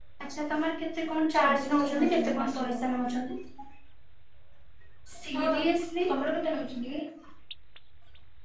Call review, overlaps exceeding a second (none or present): present